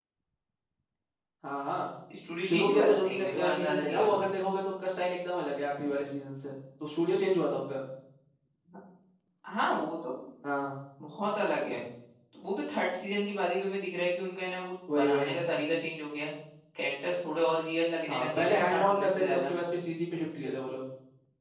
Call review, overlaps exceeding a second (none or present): present